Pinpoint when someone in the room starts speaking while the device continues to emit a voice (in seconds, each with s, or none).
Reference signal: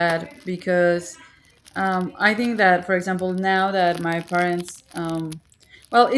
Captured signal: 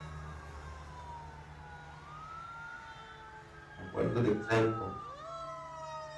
3.8 s